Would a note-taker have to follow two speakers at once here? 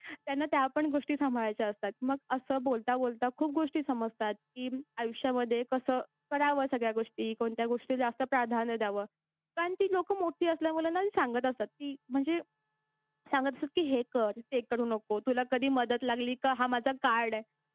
No

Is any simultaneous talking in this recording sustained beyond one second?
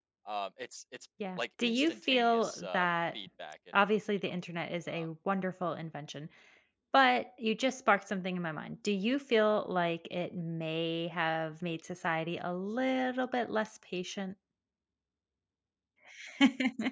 Yes, from 1.2 s

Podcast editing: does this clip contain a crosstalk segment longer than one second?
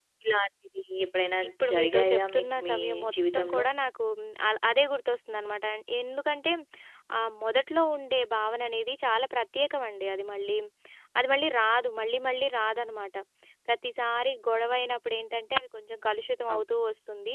Yes, from 1.4 s

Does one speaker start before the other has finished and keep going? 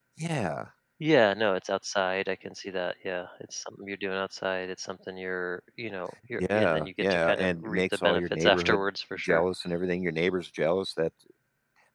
Yes, from 6.3 s

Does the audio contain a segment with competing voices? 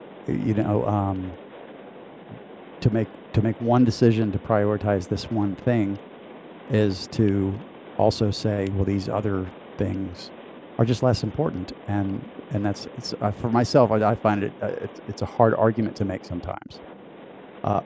No

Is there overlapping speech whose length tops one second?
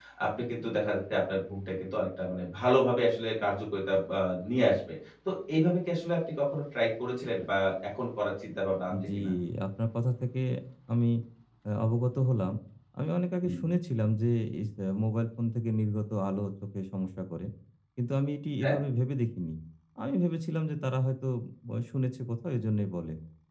No

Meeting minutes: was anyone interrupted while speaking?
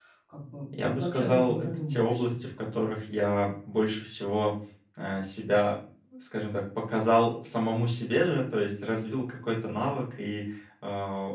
Yes, from 0.9 s

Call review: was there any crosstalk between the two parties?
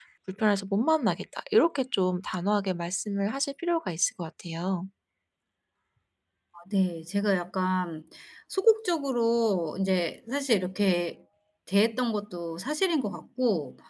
No

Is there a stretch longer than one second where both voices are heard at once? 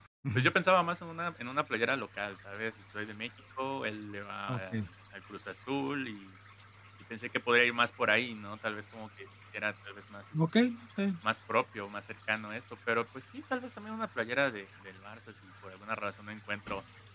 No

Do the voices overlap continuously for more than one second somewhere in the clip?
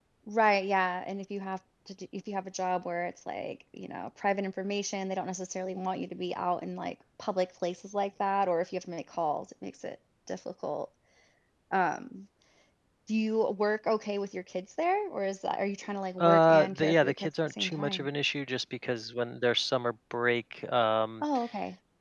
Yes, from 16.2 s

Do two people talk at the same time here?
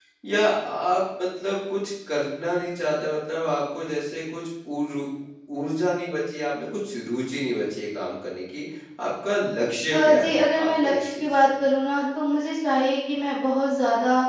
Yes, from 9.9 s

